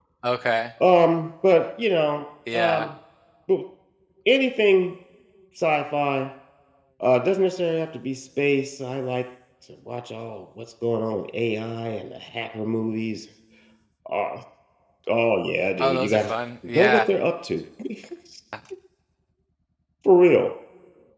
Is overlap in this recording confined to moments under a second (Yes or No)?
Yes